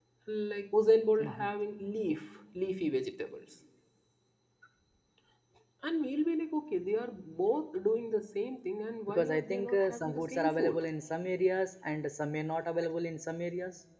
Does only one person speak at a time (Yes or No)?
No